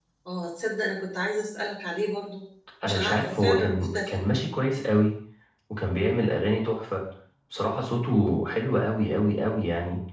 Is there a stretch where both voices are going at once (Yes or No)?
Yes